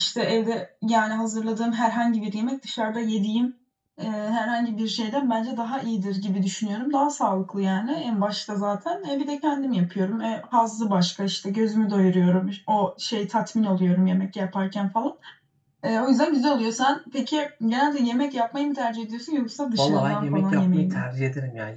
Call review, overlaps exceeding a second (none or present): present